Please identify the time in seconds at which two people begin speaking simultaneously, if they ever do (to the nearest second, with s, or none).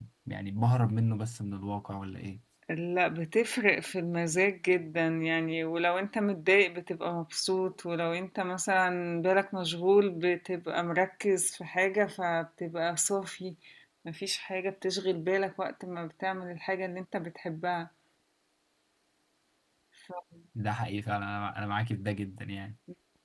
none